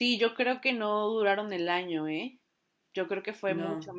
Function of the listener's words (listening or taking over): listening